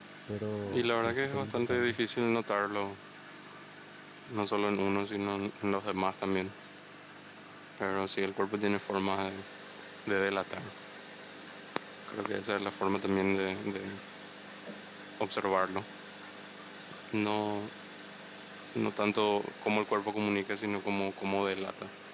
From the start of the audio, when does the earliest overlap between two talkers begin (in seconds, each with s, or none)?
0.7 s